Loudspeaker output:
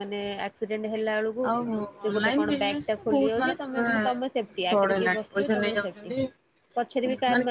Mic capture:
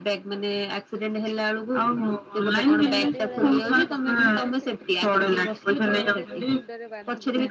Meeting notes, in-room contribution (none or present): present